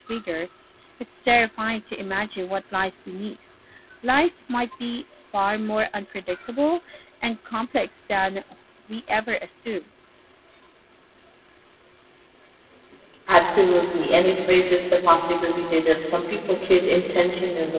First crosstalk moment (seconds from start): none

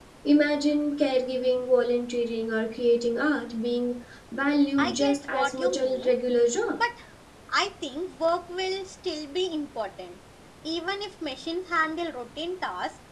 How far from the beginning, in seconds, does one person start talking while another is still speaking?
4.8 s

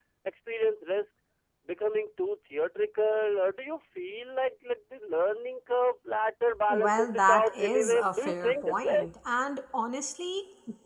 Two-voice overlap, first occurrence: 6.7 s

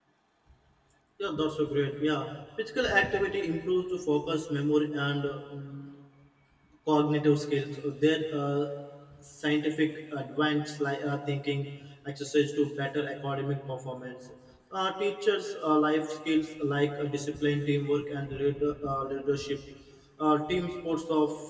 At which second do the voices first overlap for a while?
none

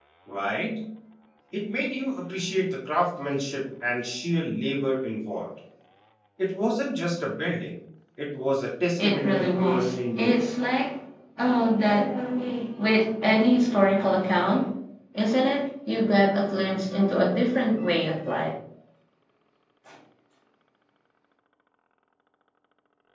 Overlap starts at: 9.0 s

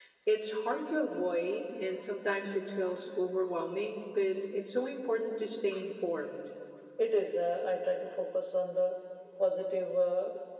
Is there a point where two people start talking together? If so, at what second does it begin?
none

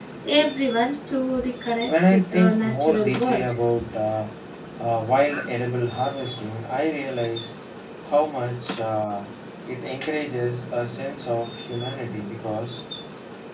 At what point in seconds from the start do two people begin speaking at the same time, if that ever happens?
1.8 s

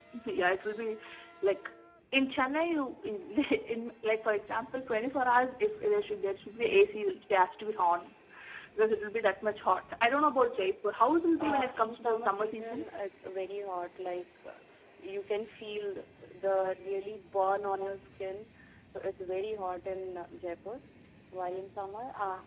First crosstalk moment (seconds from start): 11.3 s

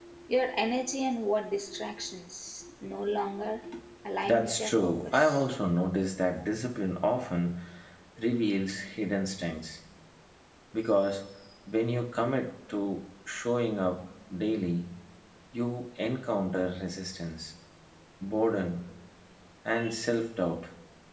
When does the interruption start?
4.2 s

